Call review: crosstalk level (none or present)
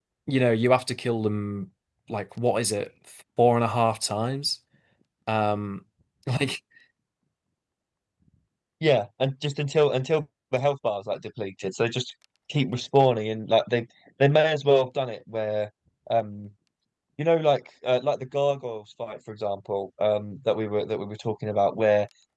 none